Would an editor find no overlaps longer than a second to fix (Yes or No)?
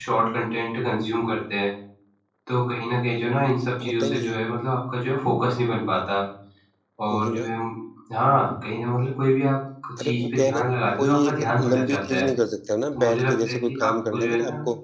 No